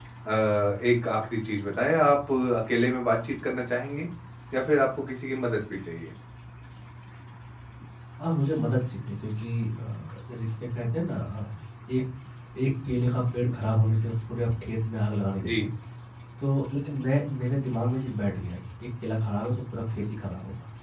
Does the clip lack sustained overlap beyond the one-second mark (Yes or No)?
Yes